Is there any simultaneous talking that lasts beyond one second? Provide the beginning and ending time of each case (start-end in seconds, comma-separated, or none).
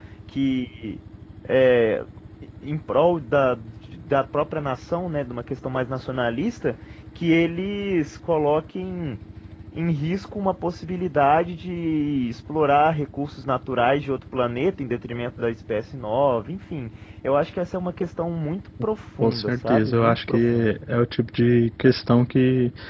19.2-20.8